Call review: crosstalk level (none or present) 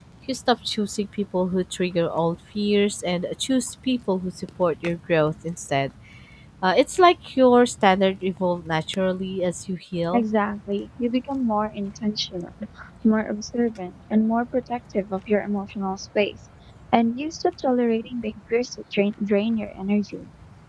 none